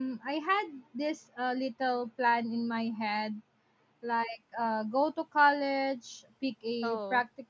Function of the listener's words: listening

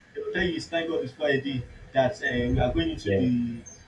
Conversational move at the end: listening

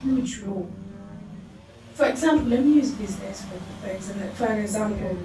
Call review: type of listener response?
listening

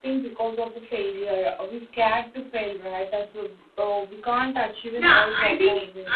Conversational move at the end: taking over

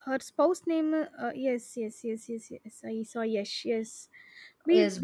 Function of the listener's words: listening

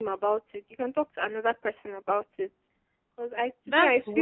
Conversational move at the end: taking over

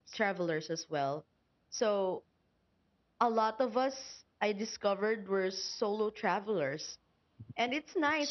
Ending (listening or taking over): listening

